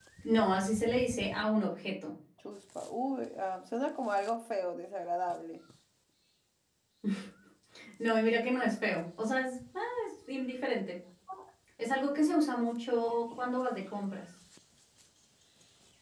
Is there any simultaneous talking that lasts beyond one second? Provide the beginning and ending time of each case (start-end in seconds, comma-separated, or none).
none